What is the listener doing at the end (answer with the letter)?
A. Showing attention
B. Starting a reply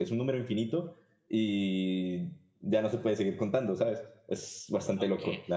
B